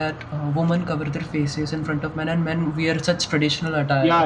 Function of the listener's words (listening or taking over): taking over